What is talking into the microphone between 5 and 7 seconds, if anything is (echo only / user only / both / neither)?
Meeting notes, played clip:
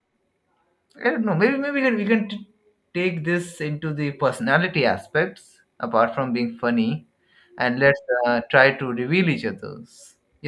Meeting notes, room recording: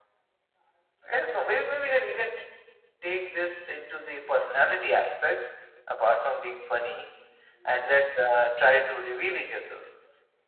echo only